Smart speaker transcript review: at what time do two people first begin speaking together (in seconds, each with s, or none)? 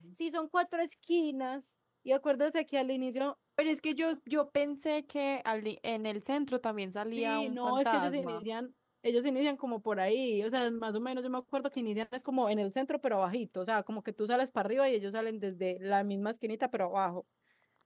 7.2 s